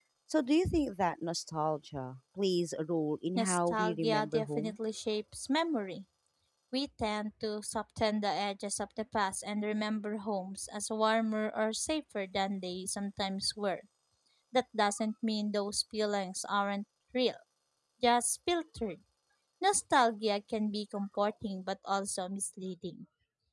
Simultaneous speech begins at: 3.4 s

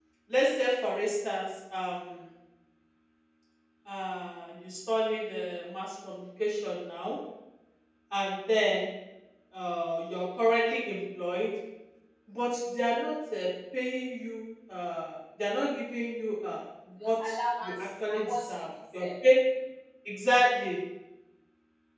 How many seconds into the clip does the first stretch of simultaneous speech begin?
17.0 s

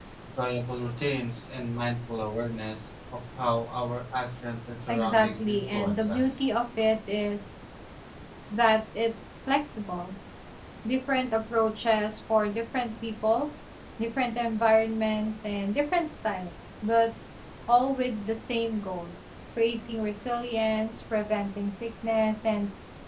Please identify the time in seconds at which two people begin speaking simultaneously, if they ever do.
4.9 s

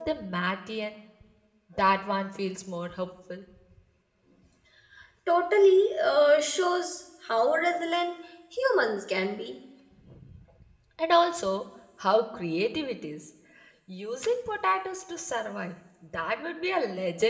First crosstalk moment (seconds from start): none

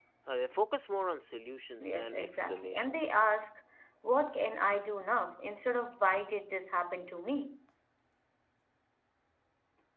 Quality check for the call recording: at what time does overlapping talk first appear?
1.8 s

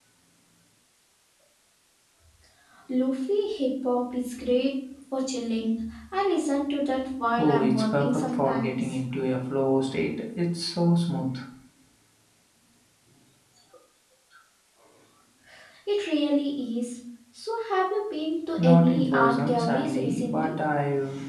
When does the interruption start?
7.4 s

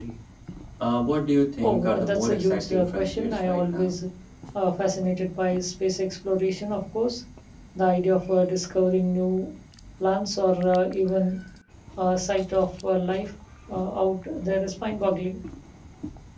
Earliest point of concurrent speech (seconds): 1.6 s

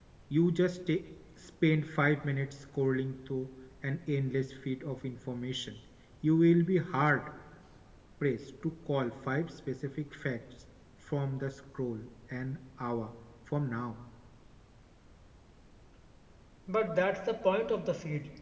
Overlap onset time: none

